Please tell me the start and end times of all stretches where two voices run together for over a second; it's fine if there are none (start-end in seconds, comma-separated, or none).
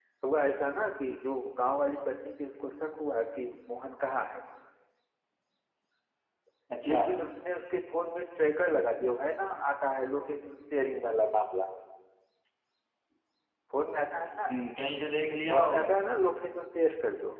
none